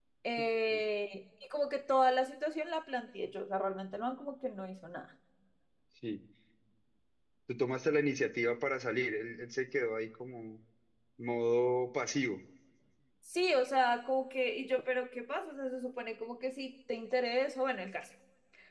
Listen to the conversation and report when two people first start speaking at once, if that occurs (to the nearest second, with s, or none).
none